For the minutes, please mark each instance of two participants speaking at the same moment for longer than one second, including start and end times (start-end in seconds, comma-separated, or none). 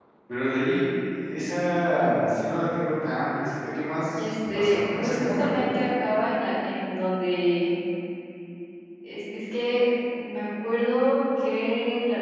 4.2-5.7